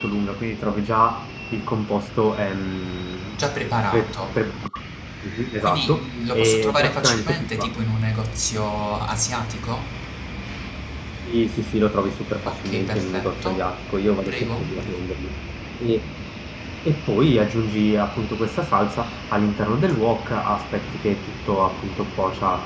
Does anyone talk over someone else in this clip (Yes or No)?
Yes